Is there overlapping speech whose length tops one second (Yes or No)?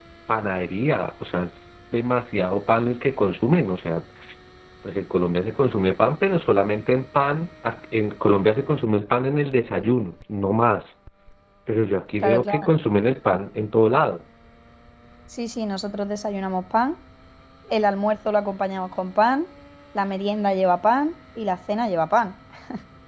No